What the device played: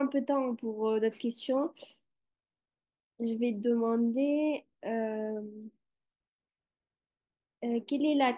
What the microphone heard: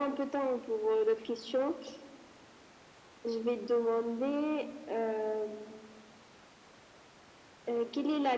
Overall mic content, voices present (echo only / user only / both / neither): echo only